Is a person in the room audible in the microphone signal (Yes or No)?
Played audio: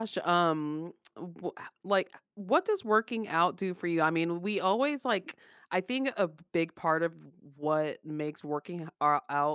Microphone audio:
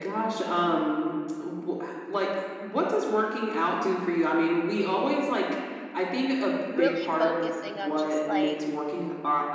Yes